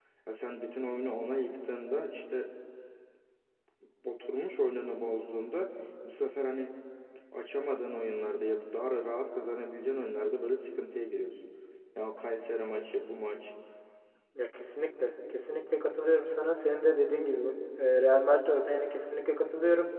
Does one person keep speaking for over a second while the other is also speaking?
No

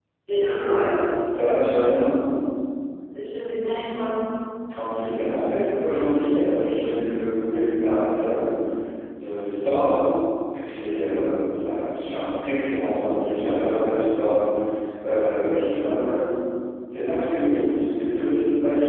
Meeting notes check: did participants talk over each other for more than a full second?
No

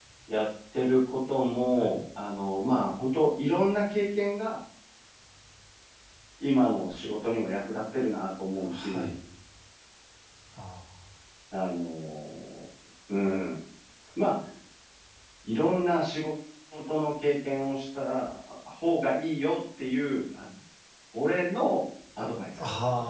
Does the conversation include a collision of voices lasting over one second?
No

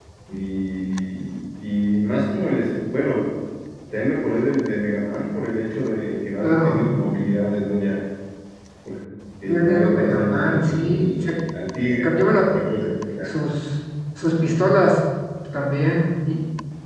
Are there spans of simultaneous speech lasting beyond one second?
Yes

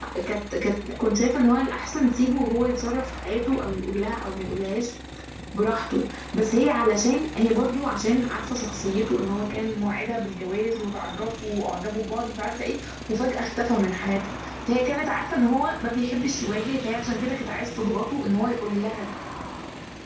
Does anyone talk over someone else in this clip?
No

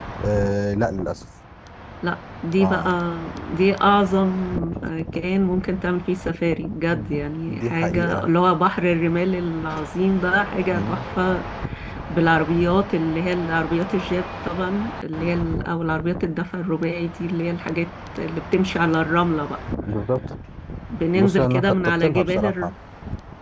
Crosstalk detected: Yes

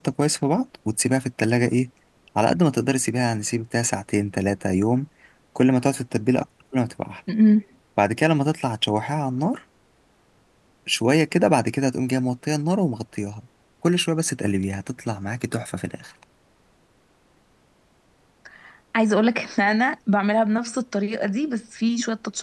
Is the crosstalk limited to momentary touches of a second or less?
Yes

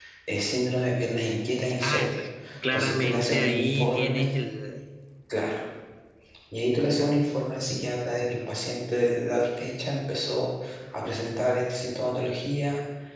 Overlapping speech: Yes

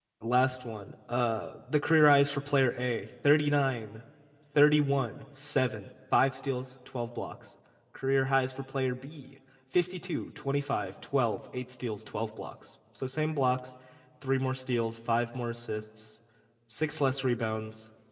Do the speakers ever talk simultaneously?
No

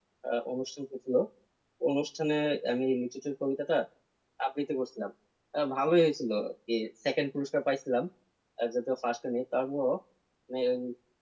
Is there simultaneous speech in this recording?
No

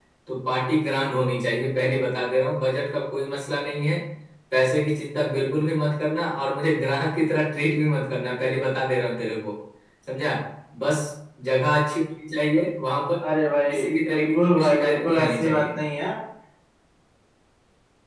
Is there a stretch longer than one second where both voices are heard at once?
Yes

